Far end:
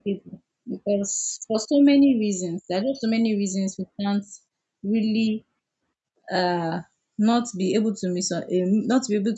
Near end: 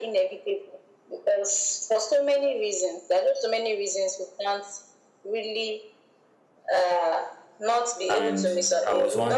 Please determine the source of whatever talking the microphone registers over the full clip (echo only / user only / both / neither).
both